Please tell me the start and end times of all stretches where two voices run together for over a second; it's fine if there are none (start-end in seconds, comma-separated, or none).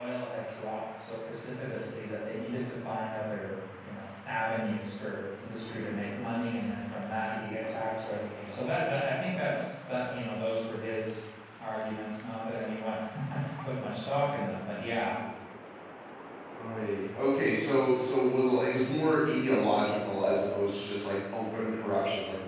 none